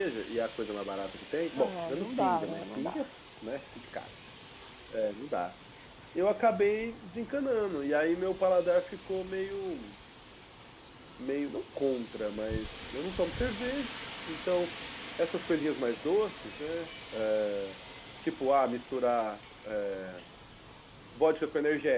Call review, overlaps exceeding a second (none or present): present